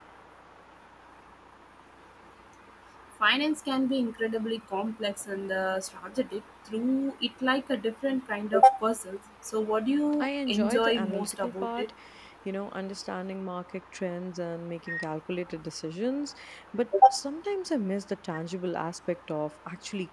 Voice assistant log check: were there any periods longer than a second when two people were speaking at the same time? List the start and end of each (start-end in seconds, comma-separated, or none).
10.2-11.9